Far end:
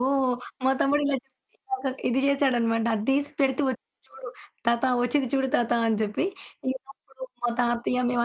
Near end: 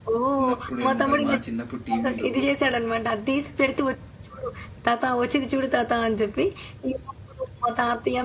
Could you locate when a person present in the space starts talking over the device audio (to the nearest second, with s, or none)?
0 s